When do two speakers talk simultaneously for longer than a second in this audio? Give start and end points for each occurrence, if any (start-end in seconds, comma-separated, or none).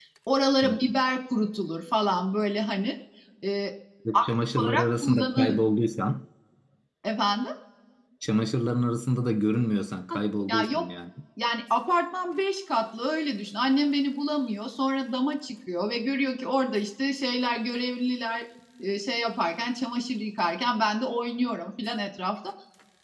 4.1-5.6